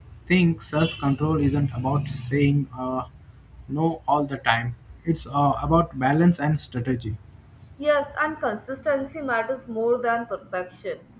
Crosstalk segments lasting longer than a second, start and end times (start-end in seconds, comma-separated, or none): none